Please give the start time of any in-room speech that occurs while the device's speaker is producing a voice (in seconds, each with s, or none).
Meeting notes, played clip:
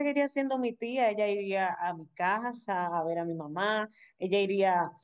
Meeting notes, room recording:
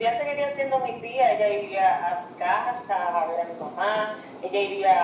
none